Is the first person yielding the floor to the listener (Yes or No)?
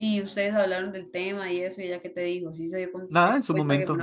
Yes